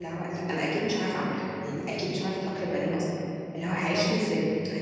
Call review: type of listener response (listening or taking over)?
listening